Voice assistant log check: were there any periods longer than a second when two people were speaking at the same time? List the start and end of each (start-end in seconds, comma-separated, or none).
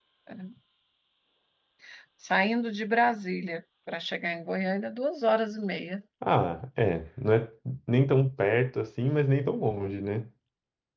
none